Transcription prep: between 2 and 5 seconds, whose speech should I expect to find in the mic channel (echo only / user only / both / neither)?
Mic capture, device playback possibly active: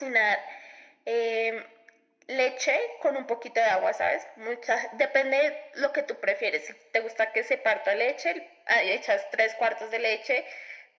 echo only